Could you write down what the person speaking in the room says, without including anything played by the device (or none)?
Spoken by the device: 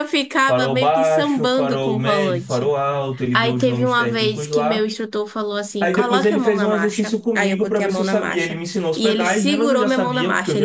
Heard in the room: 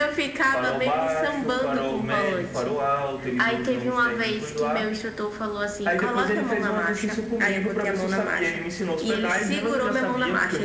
none